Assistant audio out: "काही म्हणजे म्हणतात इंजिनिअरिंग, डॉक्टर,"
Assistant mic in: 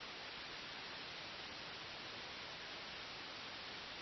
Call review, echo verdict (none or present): none